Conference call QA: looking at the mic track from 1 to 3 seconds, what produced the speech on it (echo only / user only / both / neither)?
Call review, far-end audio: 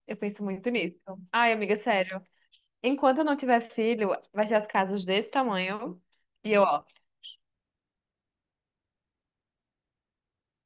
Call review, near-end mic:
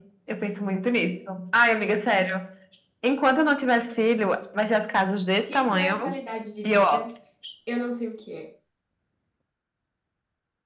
echo only